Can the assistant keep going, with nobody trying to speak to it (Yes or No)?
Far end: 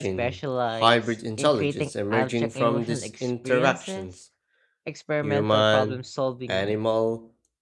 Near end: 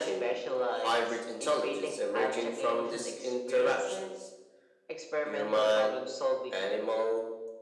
Yes